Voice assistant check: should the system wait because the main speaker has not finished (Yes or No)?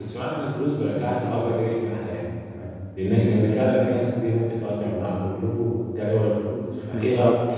Yes